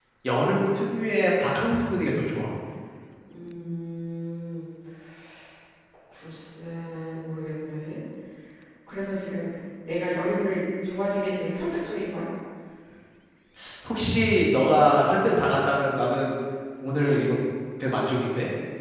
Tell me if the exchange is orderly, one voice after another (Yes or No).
Yes